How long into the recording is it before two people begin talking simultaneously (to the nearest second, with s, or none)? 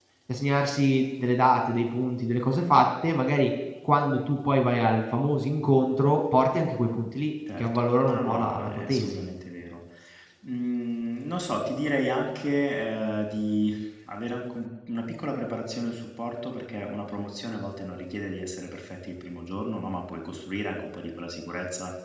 7 s